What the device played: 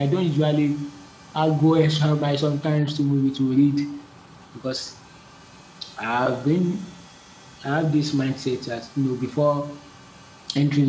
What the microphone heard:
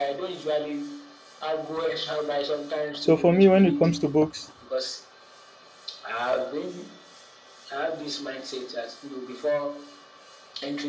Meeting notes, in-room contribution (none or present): present